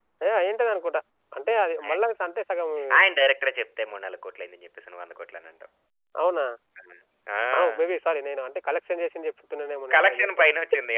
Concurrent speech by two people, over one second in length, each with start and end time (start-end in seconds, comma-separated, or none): none